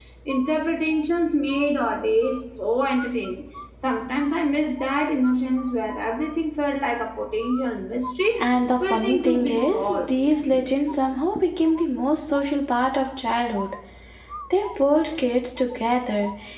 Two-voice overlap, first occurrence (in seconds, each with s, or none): 8.8 s